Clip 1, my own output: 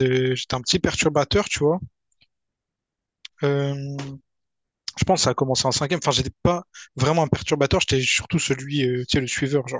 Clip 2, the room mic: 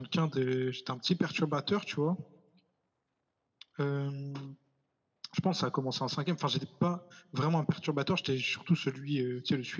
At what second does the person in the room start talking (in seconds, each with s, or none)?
none